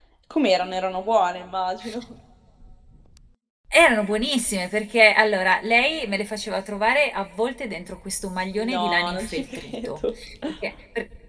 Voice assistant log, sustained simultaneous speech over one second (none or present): present